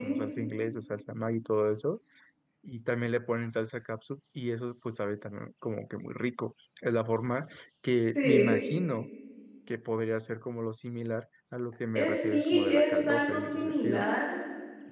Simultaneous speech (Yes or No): Yes